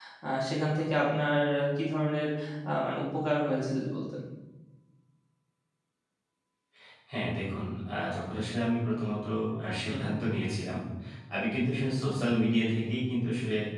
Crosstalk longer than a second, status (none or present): none